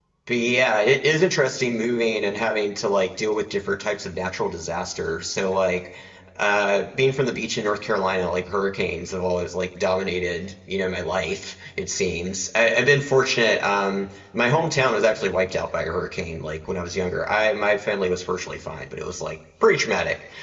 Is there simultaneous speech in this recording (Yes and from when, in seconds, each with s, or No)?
No